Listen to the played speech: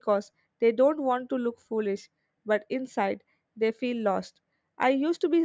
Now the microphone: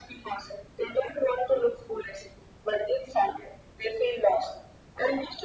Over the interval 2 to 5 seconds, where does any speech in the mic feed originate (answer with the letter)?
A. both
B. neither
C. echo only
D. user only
C